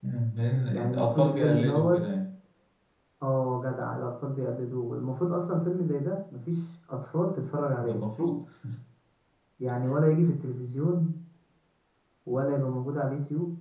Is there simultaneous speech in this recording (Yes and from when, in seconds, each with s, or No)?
Yes, from 0.7 s